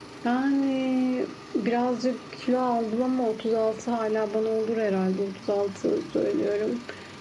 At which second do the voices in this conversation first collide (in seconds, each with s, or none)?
none